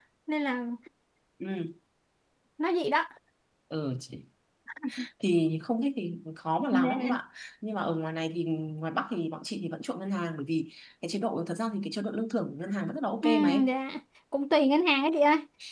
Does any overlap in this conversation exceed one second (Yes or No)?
No